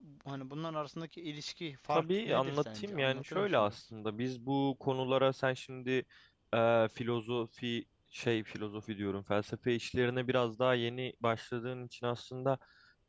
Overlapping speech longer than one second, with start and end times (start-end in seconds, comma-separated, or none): 1.9-3.8